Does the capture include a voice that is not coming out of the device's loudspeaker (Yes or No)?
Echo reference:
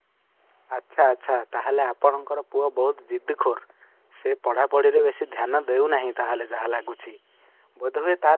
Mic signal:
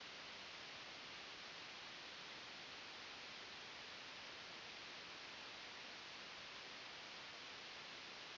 No